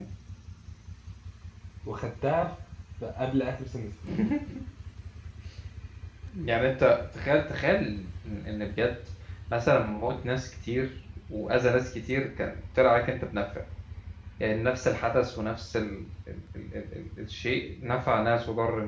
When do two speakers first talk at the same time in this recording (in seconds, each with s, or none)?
none